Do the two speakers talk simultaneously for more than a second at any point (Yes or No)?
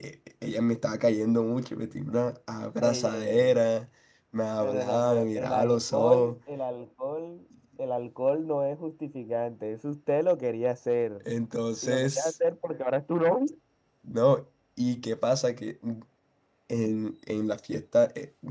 Yes